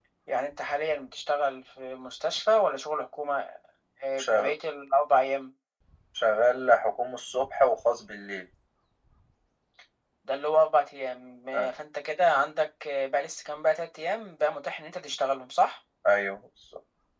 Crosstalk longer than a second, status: none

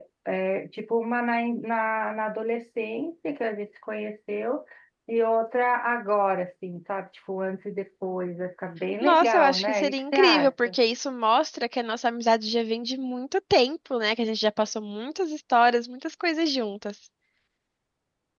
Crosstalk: present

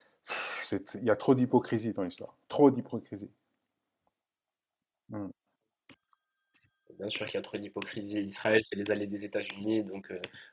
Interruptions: none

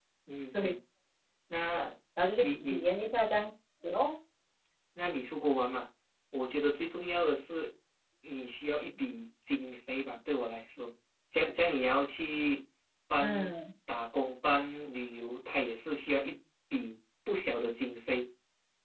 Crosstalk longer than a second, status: none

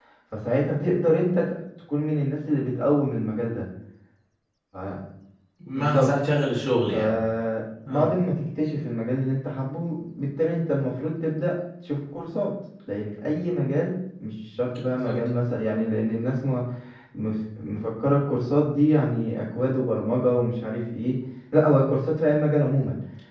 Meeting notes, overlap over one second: none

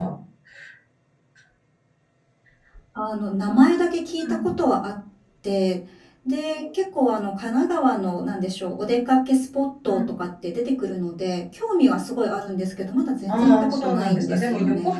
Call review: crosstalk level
present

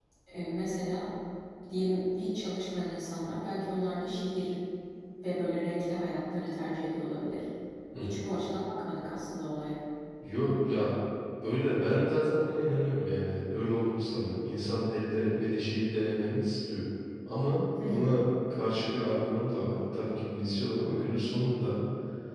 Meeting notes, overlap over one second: none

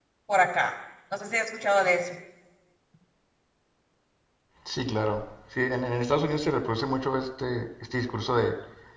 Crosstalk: none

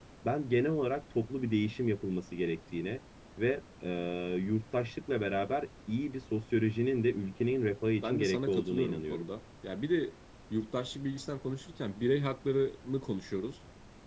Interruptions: present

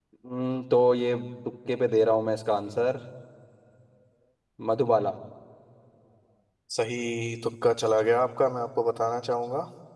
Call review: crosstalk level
none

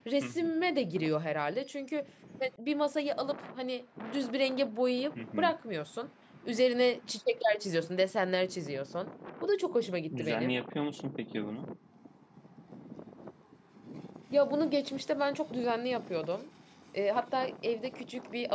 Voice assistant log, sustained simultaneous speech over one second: none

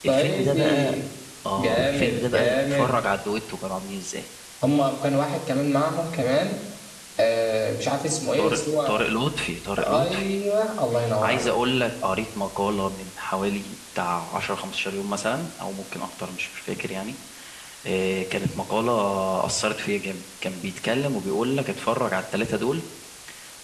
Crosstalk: present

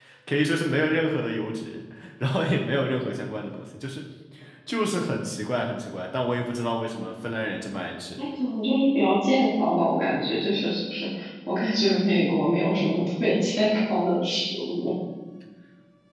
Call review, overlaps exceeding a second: none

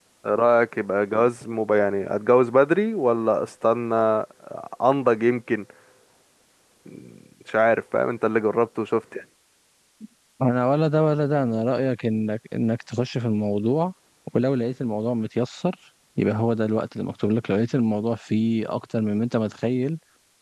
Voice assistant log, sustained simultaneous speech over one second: none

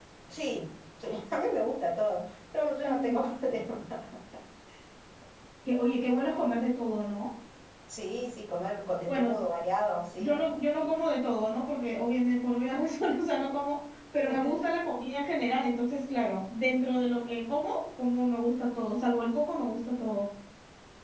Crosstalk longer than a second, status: none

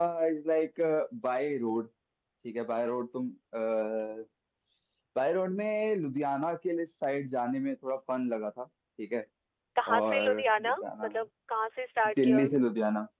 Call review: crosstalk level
present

